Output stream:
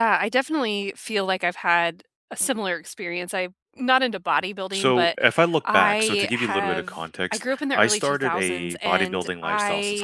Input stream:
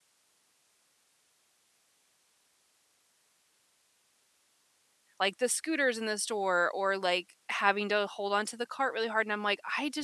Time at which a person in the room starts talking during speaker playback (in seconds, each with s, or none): 5.2 s